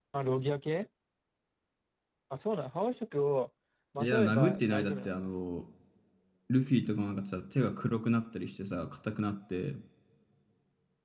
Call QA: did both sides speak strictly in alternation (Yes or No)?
No